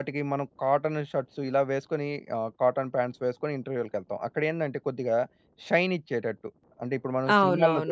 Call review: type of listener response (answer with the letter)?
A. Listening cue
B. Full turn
B